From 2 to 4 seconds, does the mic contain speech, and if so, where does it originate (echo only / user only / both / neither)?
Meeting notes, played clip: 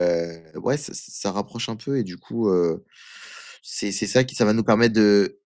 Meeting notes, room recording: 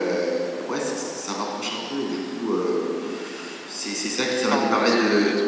echo only